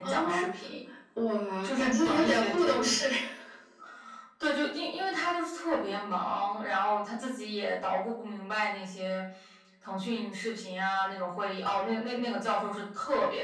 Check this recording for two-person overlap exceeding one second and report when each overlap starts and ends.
1.6-2.9

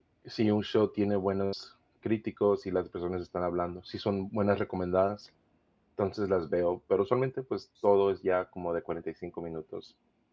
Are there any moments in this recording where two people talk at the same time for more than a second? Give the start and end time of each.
none

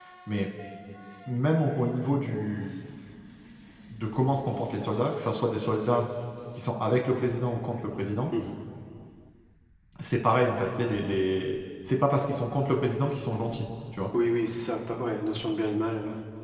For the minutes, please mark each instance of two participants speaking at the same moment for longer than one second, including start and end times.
none

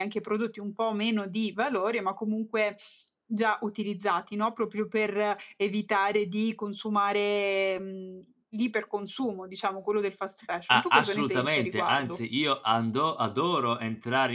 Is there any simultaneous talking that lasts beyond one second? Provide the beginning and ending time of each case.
10.7-12.2

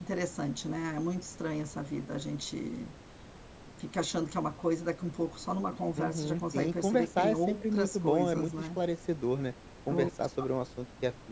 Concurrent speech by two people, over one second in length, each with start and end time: 6.0-8.8

